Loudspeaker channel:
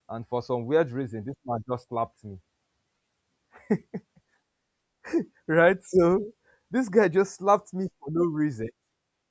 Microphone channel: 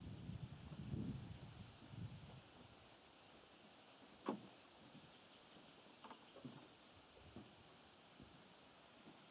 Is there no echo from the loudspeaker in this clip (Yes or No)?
Yes